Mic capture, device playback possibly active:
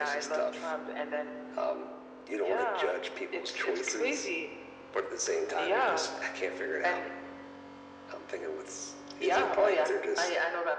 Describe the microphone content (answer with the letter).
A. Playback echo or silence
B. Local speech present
A